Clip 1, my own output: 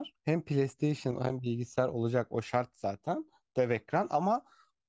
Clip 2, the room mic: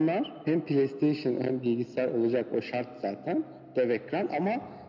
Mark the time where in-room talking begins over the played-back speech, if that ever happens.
none

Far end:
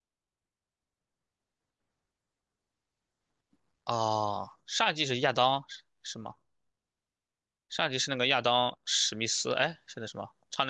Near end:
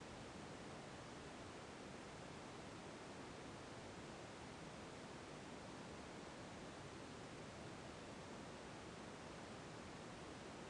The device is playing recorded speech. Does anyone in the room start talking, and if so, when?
none

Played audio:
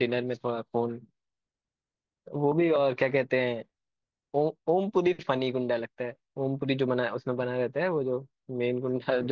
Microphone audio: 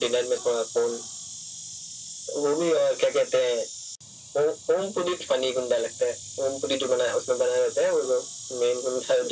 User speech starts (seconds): none

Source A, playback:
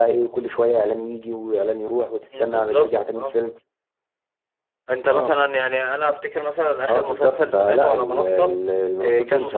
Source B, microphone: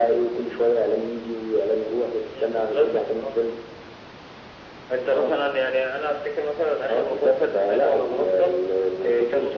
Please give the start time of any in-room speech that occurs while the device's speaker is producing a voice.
none

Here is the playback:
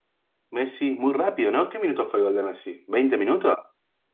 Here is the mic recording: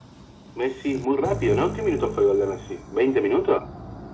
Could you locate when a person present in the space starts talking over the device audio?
none

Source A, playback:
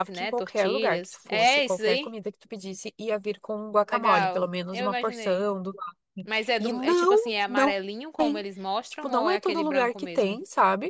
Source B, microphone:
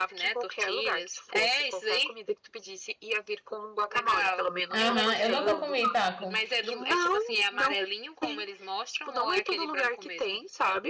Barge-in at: 4.7 s

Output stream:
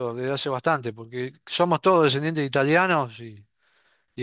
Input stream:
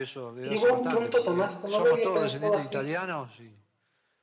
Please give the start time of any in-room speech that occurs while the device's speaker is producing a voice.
0.4 s

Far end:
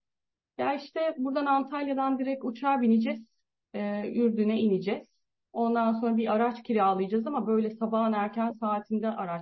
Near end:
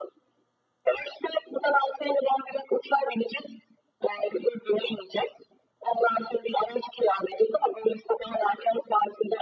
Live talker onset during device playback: none

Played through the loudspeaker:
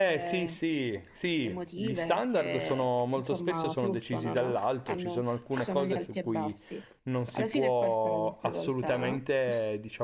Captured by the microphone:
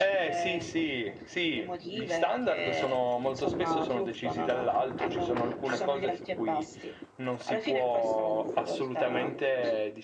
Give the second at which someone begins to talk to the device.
none

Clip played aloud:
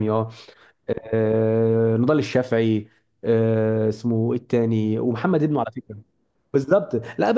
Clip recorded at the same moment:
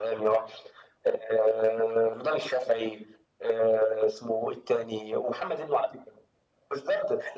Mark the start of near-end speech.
none

